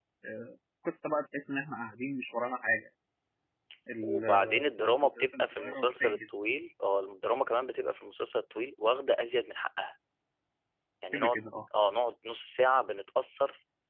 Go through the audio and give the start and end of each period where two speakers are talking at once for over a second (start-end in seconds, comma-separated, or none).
4.0-6.3